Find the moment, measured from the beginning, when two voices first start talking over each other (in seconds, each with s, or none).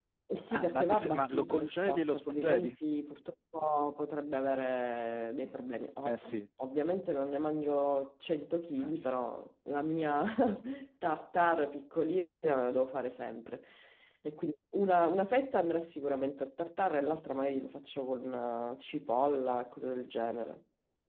0.5 s